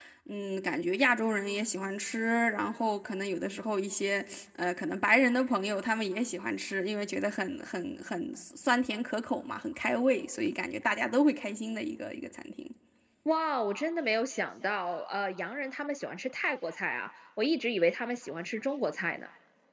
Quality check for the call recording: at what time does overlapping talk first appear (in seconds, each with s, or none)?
none